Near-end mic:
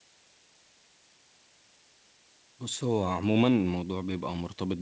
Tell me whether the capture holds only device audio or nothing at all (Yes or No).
No